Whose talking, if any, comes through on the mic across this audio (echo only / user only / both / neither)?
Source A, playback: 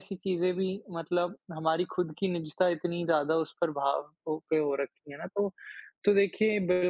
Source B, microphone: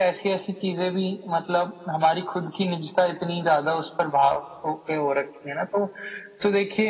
echo only